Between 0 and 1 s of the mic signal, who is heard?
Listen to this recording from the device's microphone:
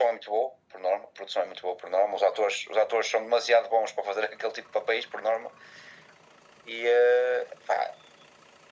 echo only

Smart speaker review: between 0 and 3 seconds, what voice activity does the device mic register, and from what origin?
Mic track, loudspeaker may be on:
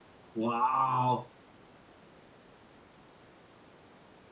user only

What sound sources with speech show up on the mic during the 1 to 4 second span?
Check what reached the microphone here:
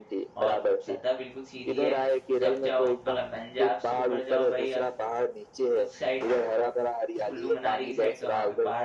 both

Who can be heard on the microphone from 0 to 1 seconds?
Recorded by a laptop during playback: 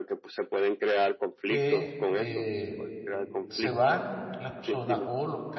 echo only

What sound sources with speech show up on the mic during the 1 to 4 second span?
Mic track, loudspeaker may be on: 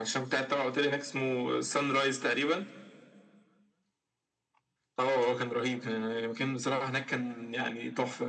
echo only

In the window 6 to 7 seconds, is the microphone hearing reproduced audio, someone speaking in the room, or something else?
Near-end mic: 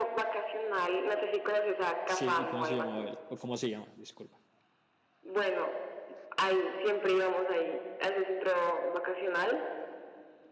echo only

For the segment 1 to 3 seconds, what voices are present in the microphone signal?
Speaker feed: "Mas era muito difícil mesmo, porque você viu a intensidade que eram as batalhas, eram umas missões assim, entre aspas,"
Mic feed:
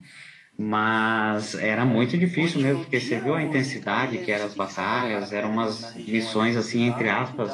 both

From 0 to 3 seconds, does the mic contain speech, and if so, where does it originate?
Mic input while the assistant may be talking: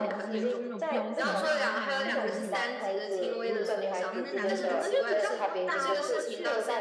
both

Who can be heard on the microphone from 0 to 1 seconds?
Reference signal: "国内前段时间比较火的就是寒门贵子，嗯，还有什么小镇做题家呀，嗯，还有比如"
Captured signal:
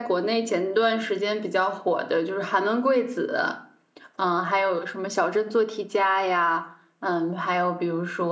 echo only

